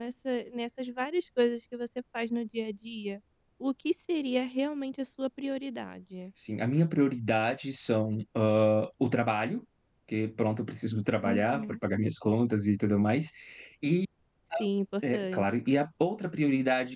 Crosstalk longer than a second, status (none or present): none